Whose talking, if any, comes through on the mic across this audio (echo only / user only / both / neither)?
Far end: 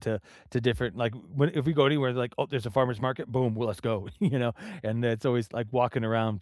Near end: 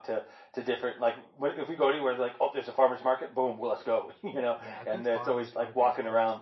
both